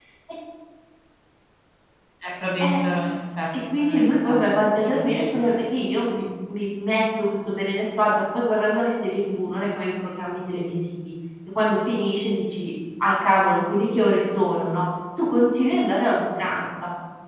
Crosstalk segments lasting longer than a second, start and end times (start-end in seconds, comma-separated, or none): 3.8-5.3